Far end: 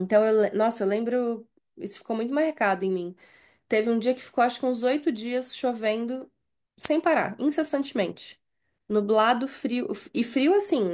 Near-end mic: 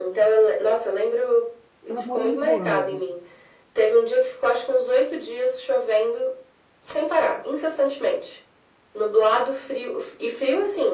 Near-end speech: present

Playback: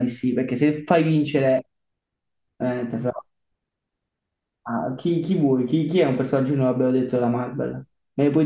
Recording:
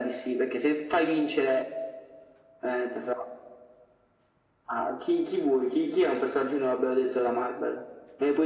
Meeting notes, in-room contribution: none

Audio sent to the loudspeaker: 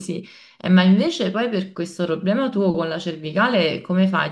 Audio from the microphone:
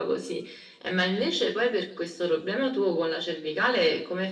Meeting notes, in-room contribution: none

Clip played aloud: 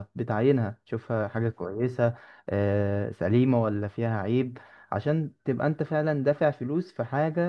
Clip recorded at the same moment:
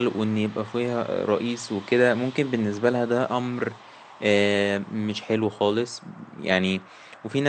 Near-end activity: present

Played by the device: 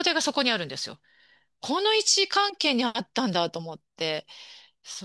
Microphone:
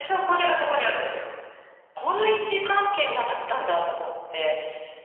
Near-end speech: none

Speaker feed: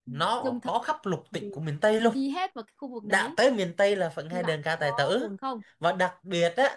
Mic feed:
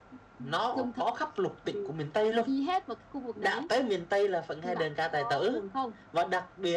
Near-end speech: none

